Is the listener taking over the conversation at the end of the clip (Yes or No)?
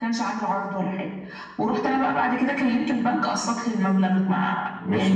Yes